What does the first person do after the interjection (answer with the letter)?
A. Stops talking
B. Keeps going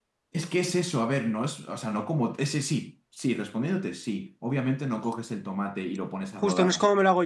A